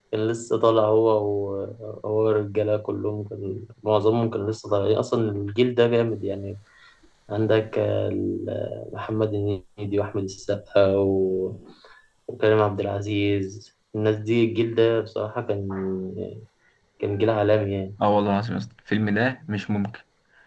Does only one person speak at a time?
Yes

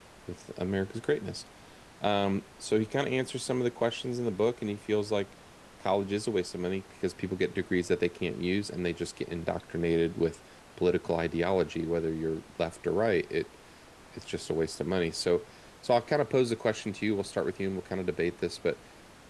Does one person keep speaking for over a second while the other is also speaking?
No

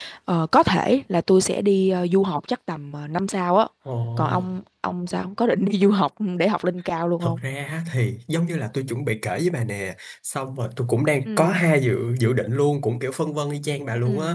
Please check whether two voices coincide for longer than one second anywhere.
No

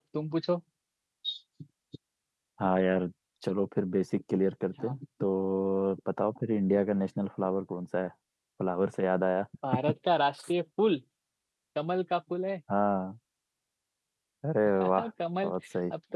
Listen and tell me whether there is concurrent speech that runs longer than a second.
No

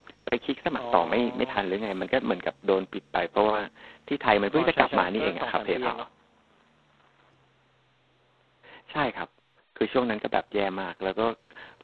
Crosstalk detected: Yes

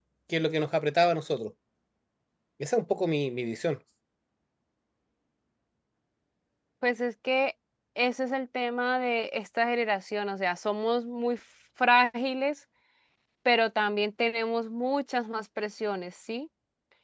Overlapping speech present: No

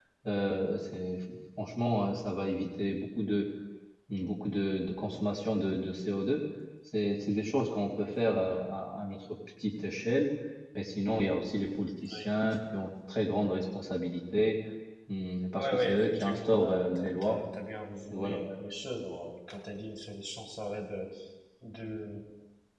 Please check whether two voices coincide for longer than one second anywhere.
Yes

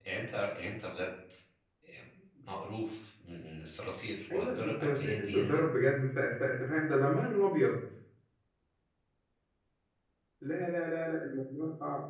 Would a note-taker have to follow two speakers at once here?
Yes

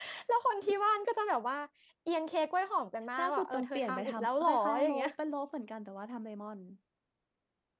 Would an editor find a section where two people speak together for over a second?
Yes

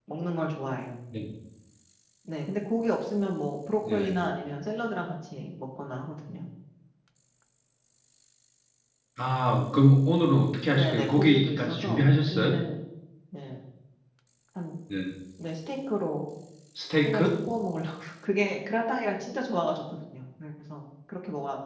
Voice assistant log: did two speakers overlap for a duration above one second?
Yes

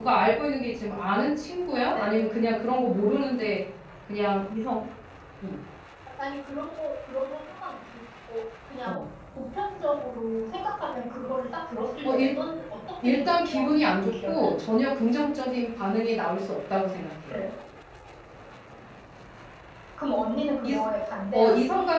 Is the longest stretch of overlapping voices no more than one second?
No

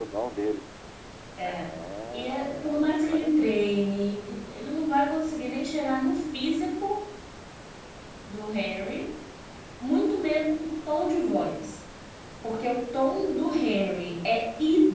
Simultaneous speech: Yes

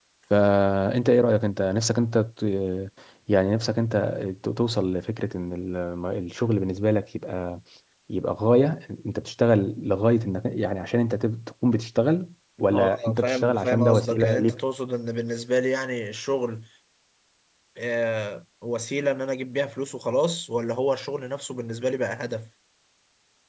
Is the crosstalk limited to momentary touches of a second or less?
No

